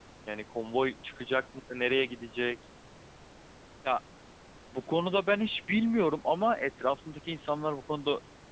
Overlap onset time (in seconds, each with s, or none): none